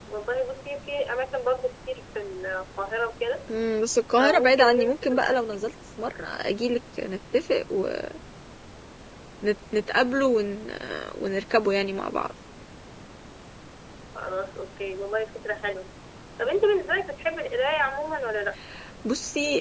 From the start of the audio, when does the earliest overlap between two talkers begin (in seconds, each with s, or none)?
4.2 s